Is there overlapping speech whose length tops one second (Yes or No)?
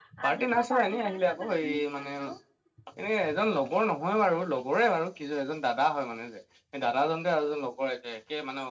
Yes